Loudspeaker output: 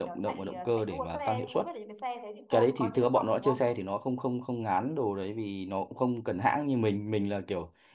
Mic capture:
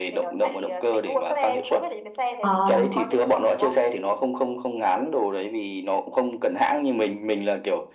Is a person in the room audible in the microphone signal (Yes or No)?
Yes